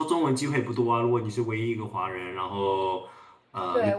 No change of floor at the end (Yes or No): No